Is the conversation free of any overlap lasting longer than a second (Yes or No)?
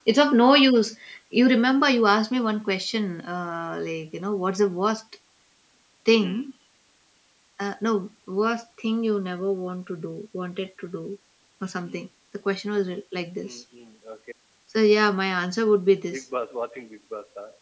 Yes